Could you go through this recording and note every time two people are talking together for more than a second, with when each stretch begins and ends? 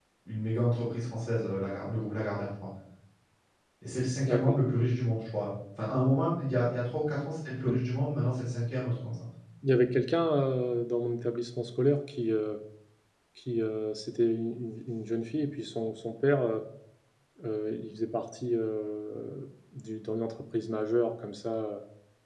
none

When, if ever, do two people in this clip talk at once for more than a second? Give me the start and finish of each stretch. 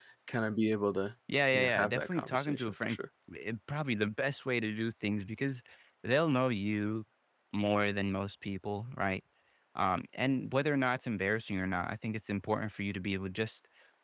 1.5-3.0

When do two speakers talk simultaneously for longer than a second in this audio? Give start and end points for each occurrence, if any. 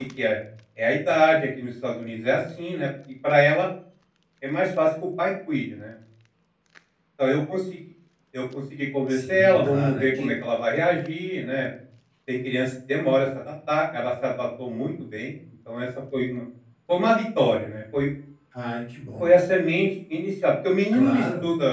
9.1-10.3

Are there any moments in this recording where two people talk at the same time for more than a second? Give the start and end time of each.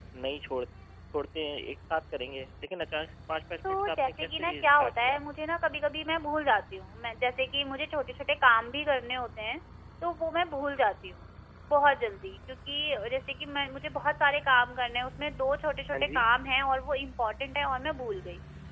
3.7-5.2

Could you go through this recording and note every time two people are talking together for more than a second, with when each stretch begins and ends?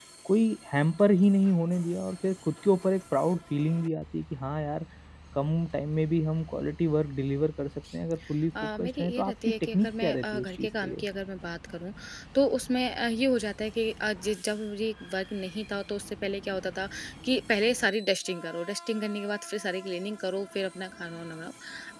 8.8-11.0

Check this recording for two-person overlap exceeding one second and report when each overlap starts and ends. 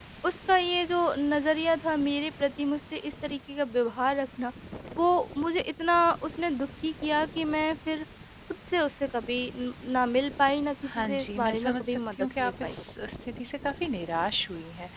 10.9-12.7

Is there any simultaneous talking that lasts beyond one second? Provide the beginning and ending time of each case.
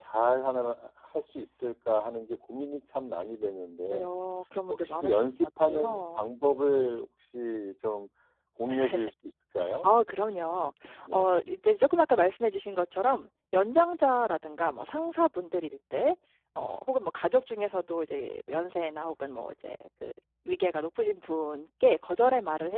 4.8-6.3

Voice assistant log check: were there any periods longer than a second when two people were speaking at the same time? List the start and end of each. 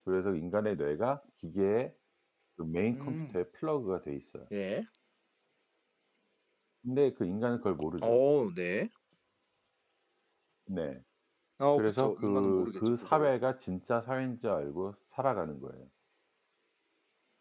11.8-13.3

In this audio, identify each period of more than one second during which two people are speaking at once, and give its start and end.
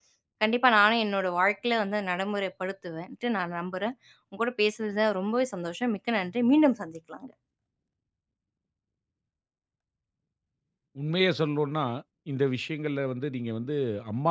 none

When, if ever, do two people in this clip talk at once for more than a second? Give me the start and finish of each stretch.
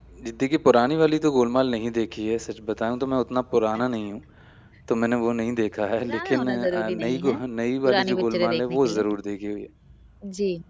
6.0-7.4, 7.8-9.0

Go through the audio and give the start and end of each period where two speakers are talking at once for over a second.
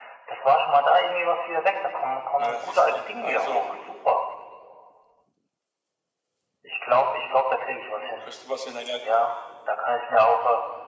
2.4-3.6

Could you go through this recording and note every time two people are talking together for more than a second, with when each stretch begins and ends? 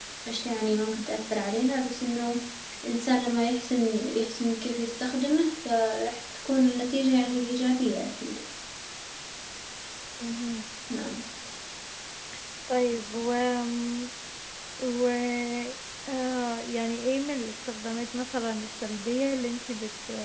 none

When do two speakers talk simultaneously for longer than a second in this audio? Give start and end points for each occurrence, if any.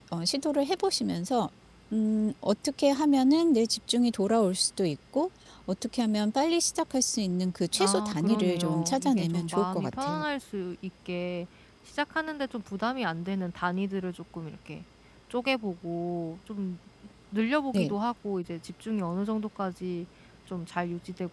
7.8-10.2

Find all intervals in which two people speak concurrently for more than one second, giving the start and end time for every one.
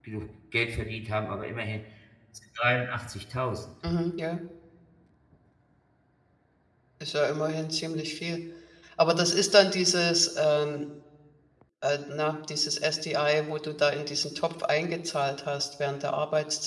none

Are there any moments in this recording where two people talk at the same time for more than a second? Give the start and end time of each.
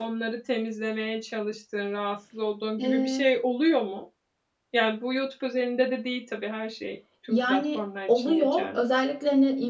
7.3-8.8

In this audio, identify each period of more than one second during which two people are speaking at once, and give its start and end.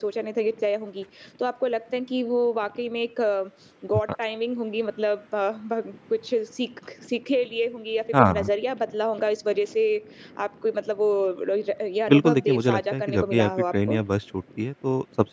12.1-14.0

